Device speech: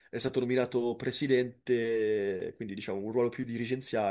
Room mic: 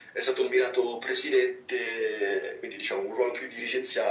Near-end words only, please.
none

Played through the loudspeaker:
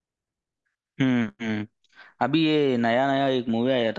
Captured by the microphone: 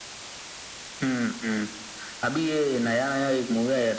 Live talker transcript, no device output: none

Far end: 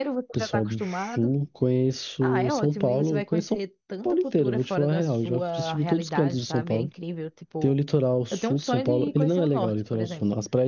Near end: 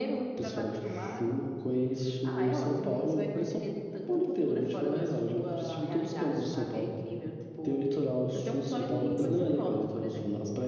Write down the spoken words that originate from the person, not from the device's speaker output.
de São Paulo.

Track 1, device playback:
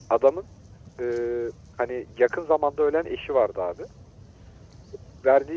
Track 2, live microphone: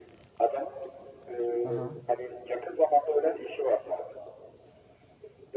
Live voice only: Aha.

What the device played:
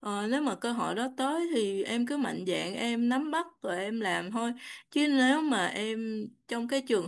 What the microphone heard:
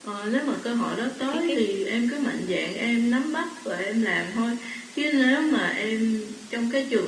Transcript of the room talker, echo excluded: cái cái

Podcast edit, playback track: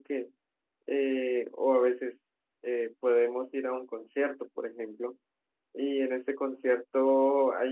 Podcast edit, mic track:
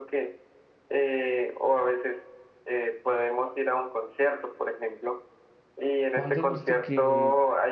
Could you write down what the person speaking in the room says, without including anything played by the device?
¿cuándo has visto que

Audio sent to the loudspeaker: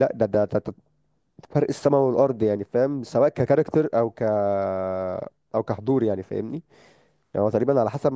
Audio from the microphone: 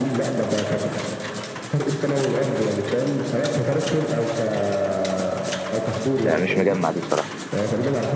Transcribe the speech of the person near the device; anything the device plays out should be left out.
يعني مش مجمع دي بصراحه

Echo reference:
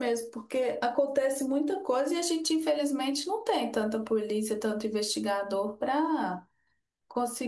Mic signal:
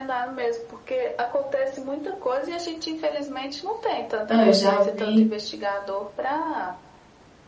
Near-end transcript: Não, eu já vi.

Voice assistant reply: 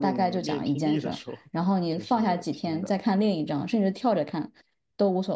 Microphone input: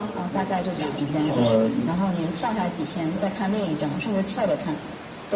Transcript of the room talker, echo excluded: 哦，

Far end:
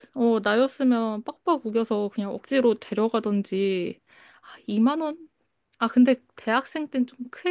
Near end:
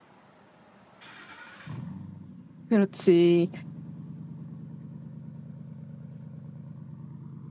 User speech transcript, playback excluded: 그렇지.

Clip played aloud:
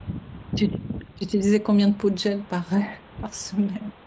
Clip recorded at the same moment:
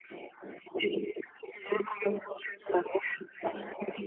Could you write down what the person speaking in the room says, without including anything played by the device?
none

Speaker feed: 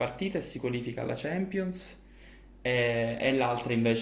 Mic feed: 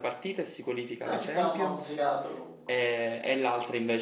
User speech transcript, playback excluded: È un sistema un po' complicato comunque.

